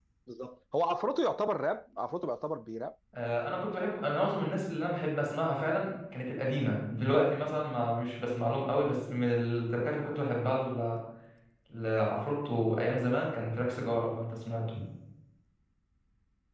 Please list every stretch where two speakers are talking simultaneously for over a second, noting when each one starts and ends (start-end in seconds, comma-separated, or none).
none